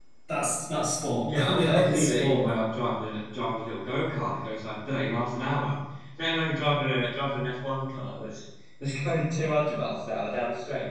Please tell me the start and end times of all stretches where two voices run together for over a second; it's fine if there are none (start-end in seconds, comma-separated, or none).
1.2-2.5